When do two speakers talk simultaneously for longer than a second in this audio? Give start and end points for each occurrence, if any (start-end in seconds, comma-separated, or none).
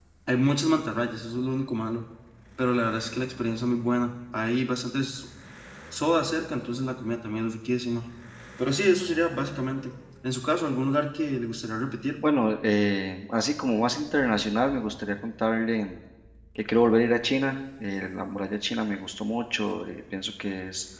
none